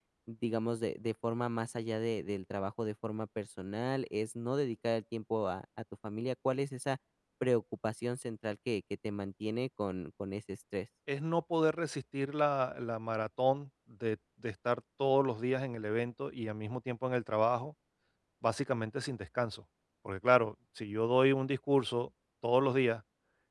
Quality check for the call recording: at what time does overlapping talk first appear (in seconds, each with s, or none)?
none